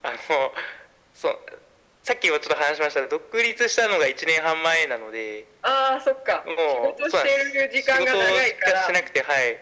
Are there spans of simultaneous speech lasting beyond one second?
Yes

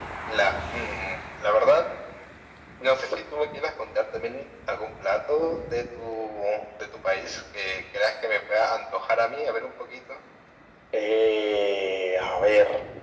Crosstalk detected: No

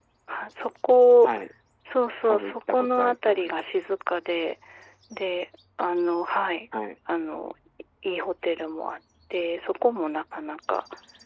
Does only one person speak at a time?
No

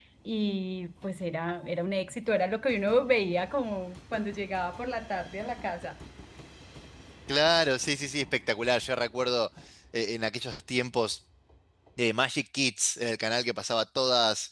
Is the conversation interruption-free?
Yes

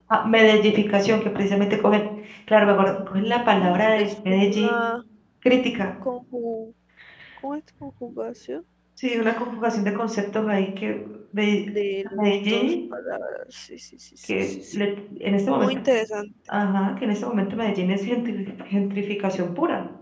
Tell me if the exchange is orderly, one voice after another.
No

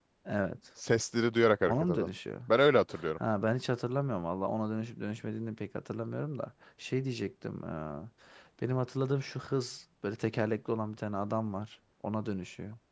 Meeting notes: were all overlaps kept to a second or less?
Yes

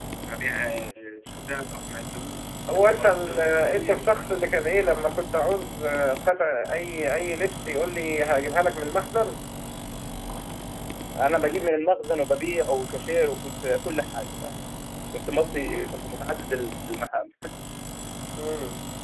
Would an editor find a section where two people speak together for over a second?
Yes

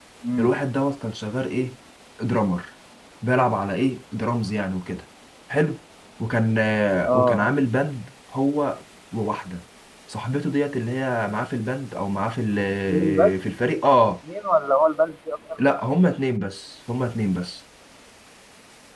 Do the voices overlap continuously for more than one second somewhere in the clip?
No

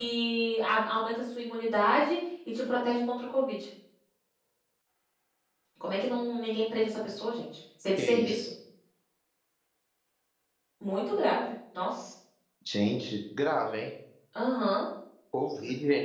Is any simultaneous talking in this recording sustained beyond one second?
No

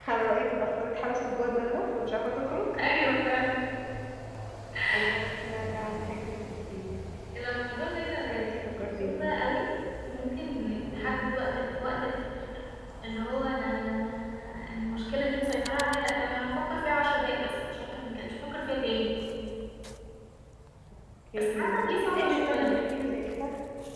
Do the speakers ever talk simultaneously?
Yes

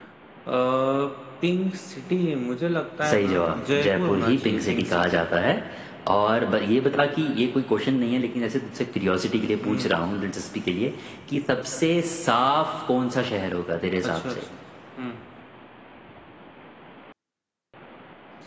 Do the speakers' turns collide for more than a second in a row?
Yes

